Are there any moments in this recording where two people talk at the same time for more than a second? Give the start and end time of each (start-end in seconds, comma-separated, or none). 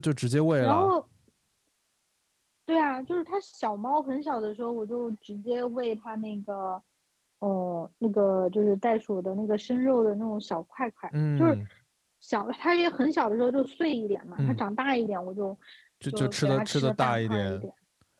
16.1-17.7